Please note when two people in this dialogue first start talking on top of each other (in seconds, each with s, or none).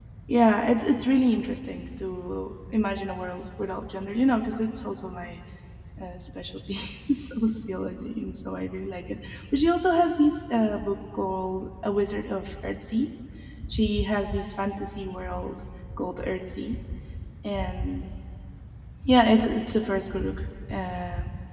none